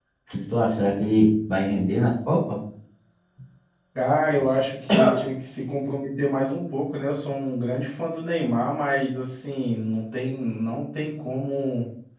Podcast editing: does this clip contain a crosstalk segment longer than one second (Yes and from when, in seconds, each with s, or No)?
No